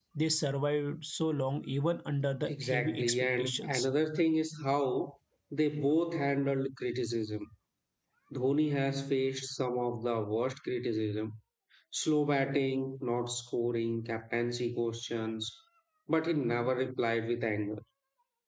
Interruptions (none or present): present